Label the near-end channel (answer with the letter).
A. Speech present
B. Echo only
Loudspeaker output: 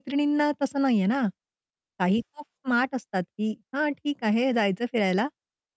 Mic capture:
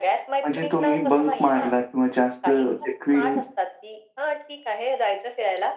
A